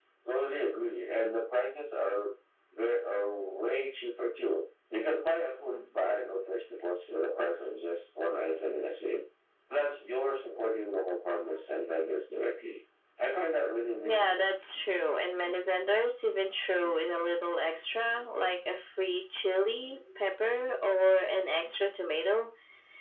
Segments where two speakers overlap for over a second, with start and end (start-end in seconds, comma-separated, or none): none